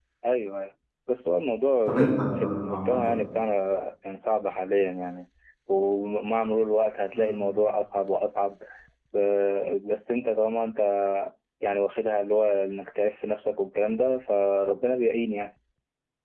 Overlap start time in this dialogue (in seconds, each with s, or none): 1.9 s